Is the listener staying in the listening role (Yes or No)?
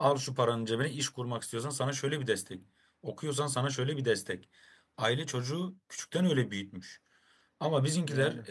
Yes